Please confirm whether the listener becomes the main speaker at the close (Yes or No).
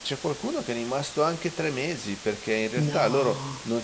No